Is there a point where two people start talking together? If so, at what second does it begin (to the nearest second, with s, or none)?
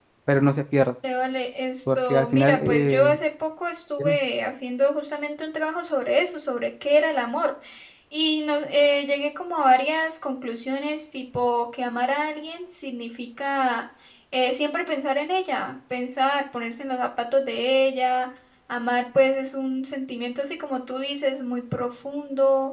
2 s